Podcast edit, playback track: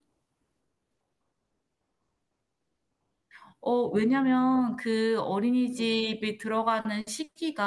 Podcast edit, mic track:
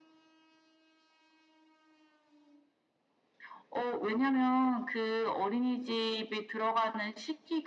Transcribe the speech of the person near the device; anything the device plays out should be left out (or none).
none